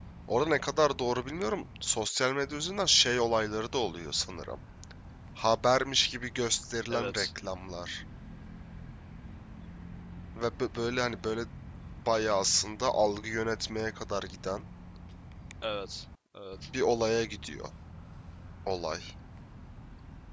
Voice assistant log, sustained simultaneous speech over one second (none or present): none